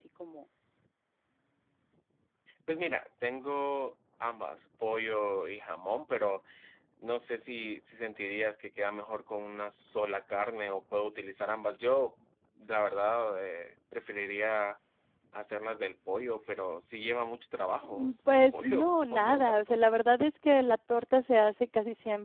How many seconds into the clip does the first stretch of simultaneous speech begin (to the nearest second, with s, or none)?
18 s